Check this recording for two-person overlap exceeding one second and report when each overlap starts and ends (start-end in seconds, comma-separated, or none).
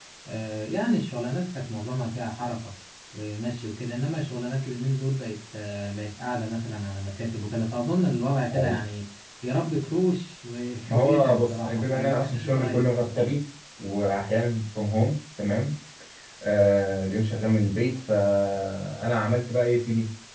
10.9-12.9